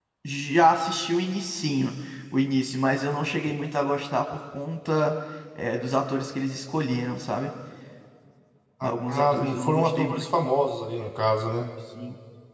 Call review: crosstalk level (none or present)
present